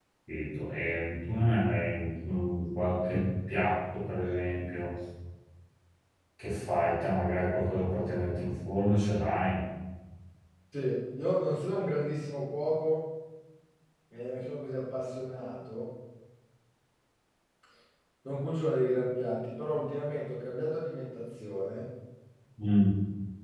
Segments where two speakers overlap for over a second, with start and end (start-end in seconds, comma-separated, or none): none